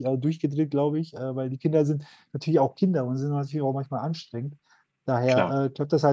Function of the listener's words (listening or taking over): listening